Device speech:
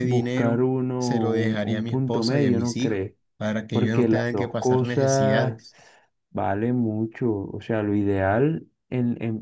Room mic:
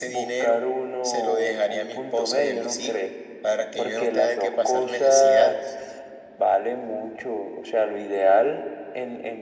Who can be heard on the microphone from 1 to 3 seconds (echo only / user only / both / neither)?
echo only